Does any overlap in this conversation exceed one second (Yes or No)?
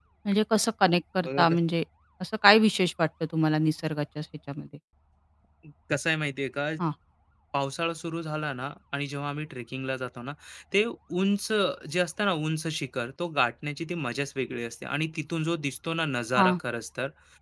No